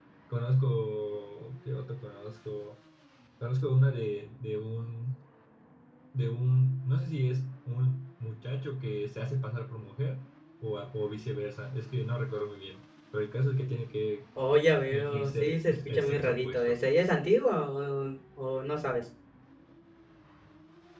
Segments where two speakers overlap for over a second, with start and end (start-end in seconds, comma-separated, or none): 14.9-16.8